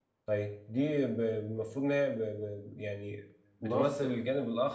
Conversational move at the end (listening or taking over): listening